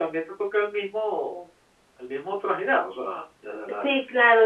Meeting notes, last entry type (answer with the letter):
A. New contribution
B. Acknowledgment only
A